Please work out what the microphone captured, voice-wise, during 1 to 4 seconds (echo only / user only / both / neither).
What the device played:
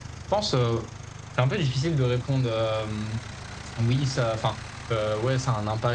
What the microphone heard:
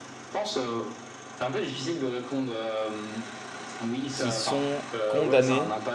echo only